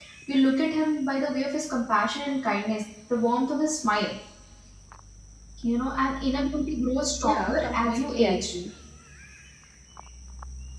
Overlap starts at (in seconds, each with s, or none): 7.2 s